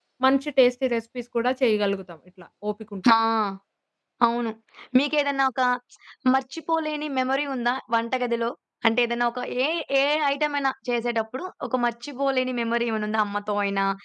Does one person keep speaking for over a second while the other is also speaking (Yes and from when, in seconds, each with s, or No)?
No